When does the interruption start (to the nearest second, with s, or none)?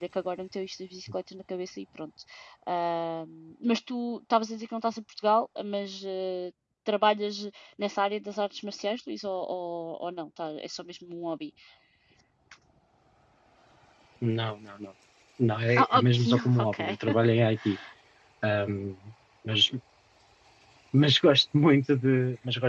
16 s